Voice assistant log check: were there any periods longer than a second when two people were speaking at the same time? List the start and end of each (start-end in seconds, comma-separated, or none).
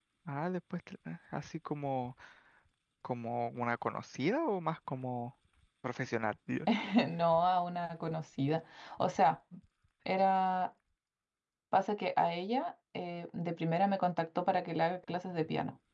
none